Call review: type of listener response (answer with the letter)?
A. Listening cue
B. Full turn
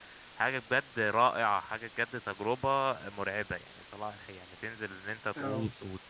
A